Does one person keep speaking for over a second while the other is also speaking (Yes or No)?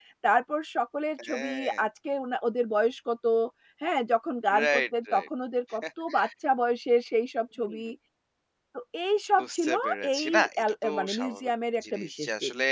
Yes